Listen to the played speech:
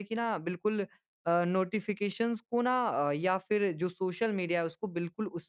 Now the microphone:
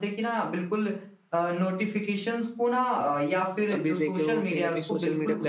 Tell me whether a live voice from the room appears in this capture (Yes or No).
Yes